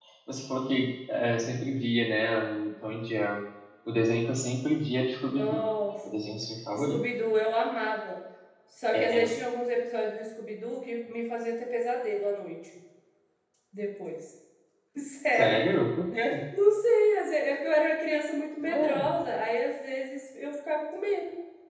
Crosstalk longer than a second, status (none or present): none